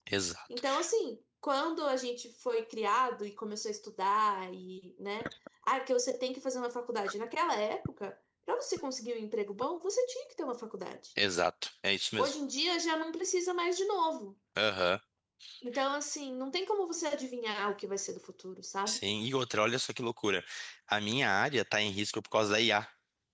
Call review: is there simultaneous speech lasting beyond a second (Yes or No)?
No